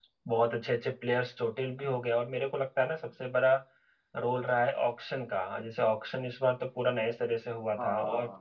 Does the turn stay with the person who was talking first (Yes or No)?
Yes